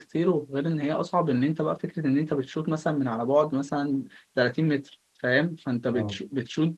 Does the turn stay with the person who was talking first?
Yes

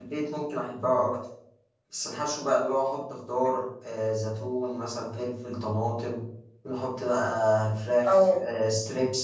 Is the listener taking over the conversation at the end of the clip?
No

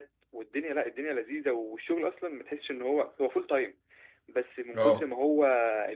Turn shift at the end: No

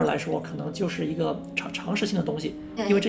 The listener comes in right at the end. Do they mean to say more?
No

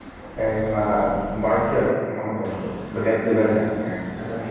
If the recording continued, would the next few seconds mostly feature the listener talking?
Yes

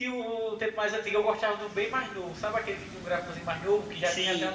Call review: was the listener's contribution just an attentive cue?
Yes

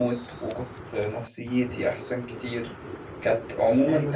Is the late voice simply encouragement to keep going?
No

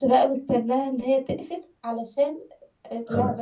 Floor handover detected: Yes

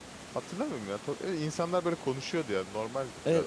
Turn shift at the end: Yes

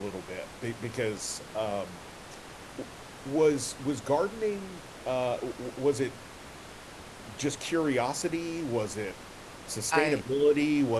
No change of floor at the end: Yes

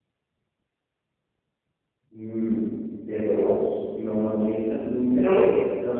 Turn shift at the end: No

